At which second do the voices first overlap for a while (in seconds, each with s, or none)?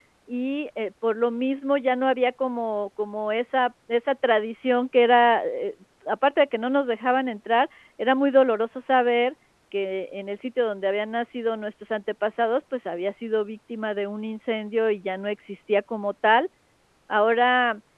none